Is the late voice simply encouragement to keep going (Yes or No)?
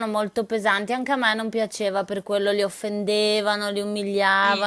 Yes